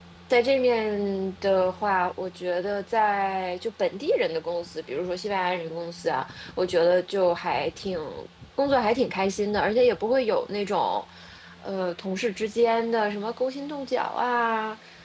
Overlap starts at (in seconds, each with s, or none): none